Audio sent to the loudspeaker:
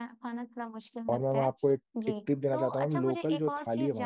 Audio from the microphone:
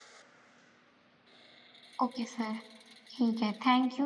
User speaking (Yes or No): Yes